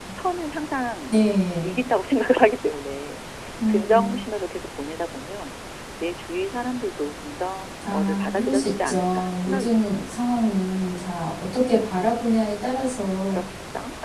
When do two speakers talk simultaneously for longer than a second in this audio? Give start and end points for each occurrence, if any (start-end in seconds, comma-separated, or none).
7.9-10.0